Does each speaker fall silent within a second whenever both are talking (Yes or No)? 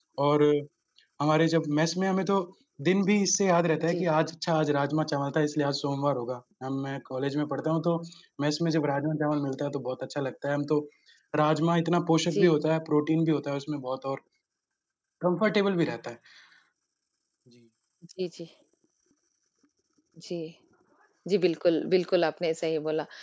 Yes